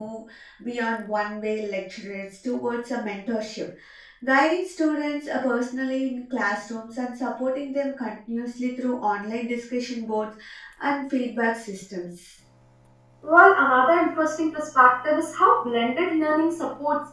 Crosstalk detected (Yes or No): No